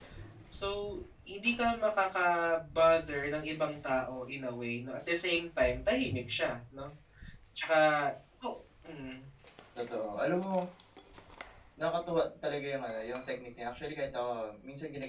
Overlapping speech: No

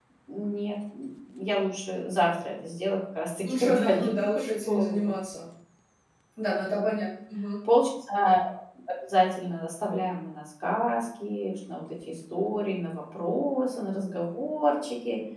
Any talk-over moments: Yes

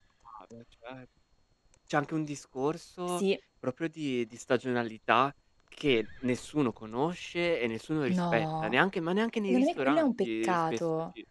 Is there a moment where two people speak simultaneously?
Yes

